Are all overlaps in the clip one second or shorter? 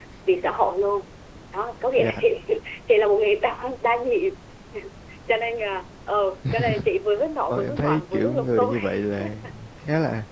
No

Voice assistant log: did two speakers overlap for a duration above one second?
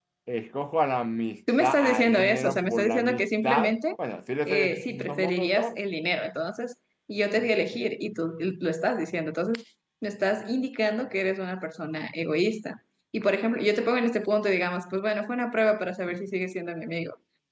Yes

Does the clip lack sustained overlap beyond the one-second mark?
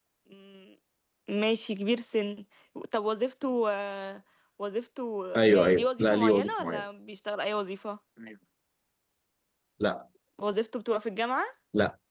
No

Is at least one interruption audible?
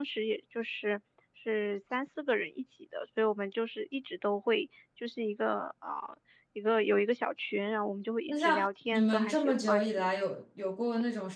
Yes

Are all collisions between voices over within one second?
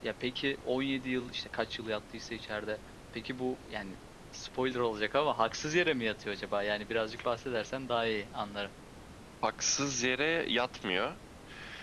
Yes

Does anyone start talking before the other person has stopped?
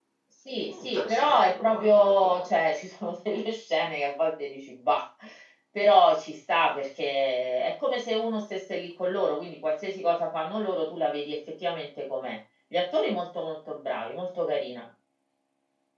Yes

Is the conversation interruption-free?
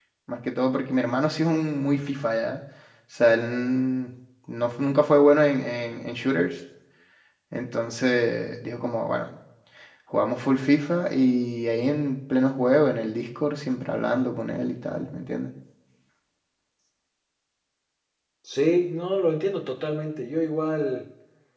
Yes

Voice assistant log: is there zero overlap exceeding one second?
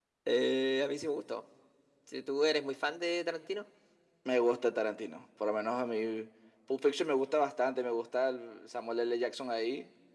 Yes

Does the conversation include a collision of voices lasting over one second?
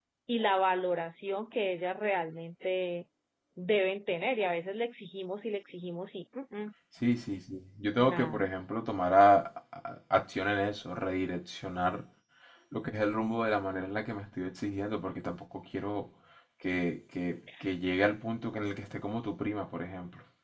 No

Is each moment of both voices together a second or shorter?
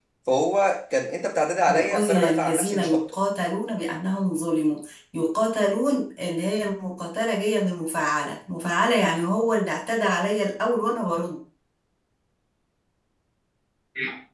No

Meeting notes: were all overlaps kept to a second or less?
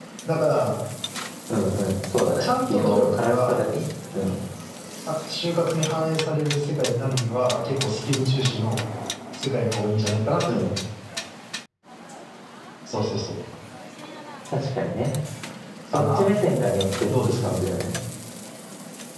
No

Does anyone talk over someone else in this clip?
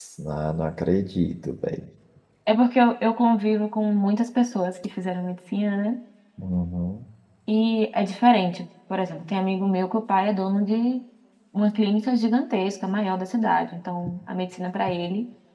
No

